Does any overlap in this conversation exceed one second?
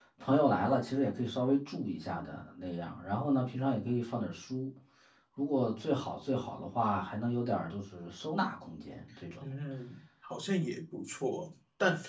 No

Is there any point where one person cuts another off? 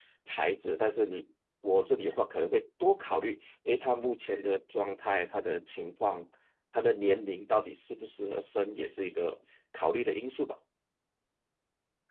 No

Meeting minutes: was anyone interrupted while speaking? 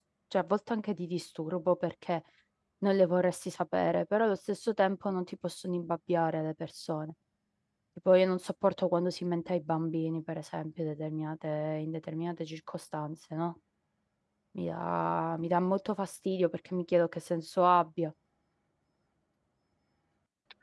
No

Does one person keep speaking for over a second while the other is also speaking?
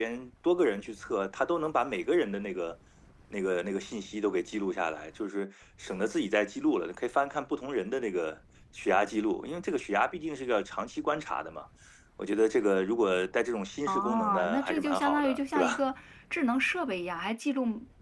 Yes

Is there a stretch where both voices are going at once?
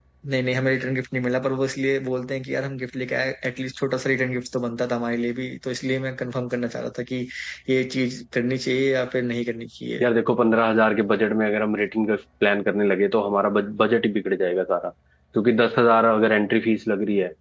No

